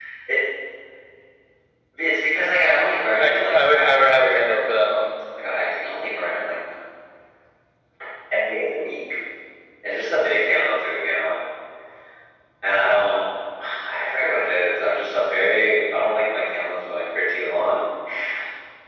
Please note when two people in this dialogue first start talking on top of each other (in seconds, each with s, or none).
3.2 s